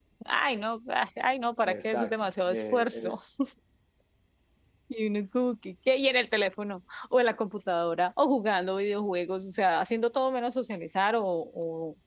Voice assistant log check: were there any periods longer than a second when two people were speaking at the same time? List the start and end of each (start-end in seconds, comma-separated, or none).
1.6-3.2